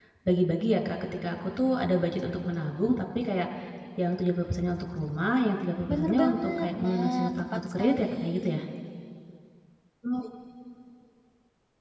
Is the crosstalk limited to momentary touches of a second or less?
No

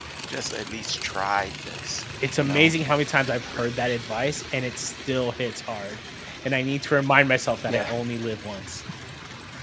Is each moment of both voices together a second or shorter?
Yes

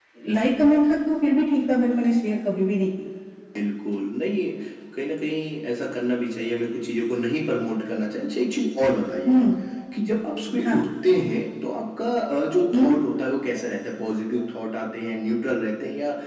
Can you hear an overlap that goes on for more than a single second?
No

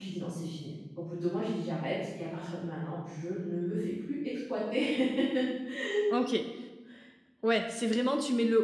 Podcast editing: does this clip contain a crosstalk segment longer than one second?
No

